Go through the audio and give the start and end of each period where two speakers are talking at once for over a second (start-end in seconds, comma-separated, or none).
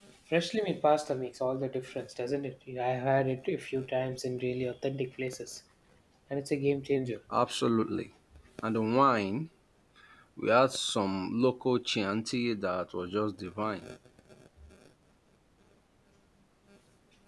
none